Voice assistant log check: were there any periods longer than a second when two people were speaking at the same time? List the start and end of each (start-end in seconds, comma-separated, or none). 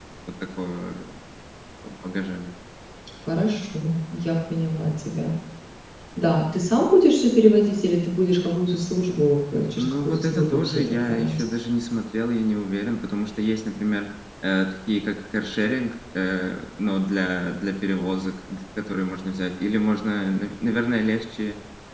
9.8-11.4